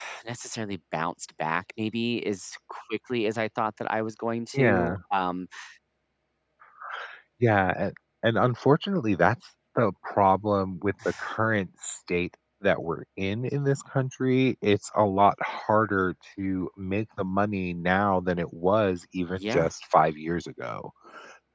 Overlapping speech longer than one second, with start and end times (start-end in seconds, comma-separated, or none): none